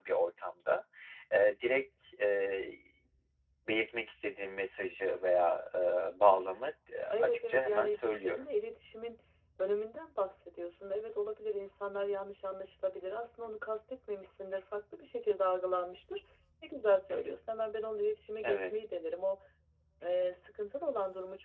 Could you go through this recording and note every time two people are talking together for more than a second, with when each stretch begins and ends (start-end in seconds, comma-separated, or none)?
7.1-8.4